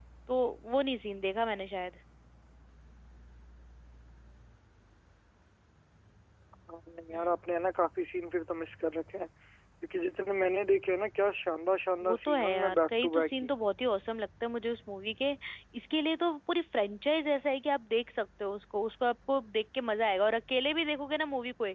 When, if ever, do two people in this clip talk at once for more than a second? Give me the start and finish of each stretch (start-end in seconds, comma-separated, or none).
12.0-13.3